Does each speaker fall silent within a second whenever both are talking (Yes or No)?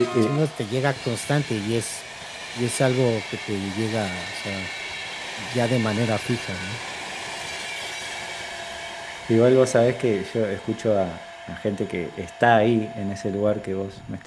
Yes